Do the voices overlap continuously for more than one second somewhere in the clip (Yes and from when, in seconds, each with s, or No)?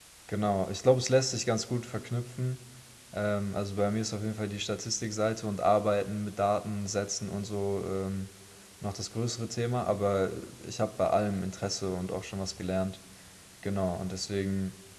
No